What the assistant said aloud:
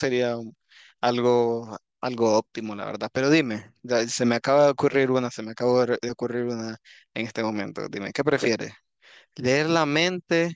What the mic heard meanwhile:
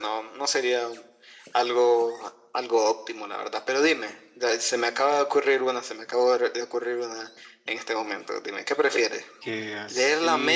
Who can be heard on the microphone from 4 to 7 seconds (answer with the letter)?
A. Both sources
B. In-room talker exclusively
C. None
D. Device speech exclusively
D